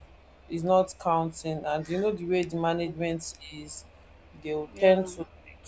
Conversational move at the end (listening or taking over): listening